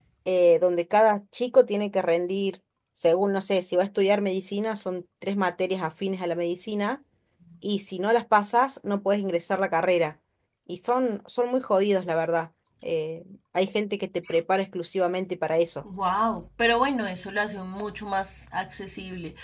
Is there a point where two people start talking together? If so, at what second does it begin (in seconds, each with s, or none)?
none